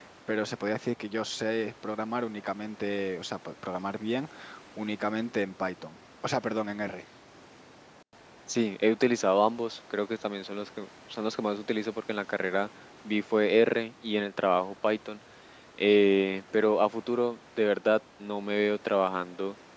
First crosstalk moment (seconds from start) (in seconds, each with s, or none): none